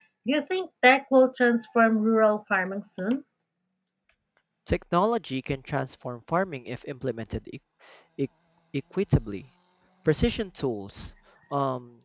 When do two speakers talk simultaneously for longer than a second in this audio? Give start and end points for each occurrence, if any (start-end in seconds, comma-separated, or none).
none